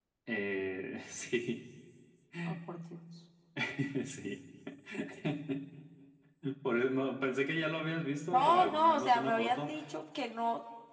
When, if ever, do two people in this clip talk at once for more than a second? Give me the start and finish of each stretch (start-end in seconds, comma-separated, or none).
8.3-9.7